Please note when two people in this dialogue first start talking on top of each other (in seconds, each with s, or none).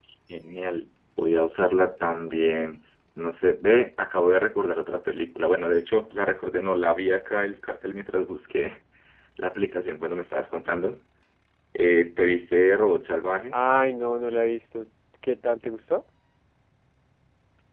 none